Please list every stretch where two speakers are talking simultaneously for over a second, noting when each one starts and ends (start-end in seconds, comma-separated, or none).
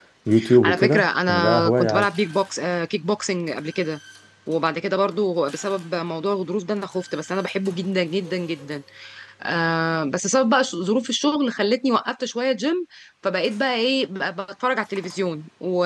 0.6-2.1